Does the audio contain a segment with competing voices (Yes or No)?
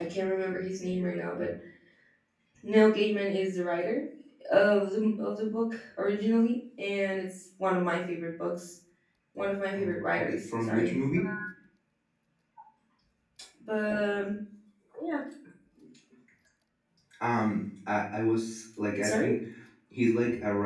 Yes